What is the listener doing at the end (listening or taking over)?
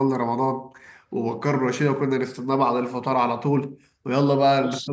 listening